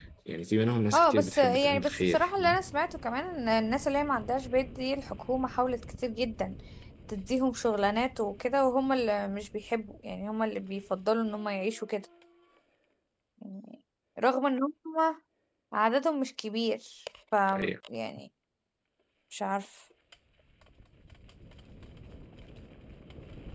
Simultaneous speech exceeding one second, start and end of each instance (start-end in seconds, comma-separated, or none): 0.9-2.3